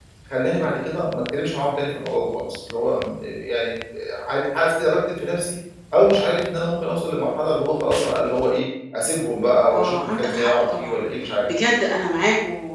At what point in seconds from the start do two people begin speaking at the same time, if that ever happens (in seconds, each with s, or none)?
9.7 s